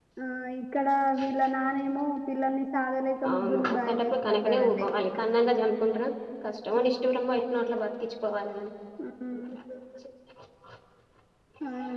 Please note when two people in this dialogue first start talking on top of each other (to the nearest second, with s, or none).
3 s